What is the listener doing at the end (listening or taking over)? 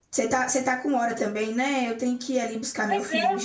taking over